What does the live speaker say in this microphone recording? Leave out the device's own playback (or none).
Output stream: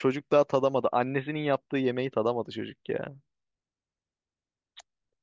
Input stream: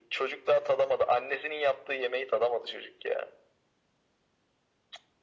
none